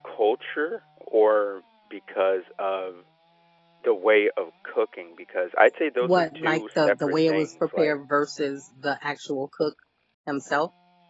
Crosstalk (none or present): present